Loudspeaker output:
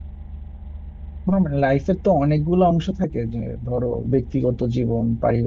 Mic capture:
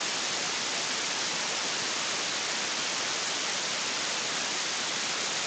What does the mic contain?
neither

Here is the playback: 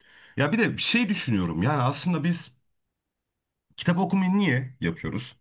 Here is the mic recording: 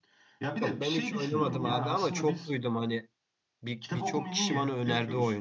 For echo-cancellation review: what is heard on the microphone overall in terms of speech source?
both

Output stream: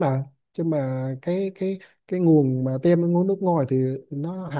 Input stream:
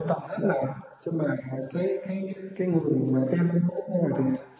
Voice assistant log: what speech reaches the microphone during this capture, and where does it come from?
echo only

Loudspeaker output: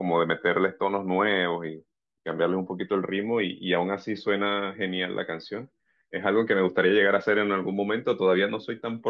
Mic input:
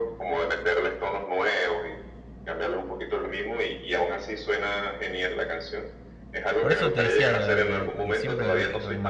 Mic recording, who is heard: both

